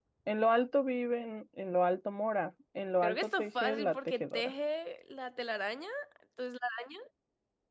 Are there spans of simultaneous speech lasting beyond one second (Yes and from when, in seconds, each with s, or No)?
Yes, from 3.0 s